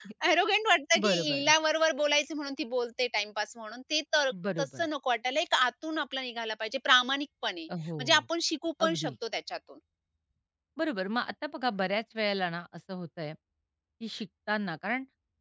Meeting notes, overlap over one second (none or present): none